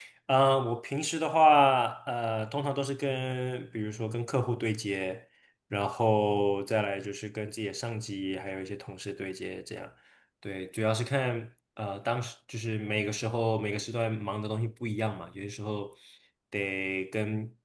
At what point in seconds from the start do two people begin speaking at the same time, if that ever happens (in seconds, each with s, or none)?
none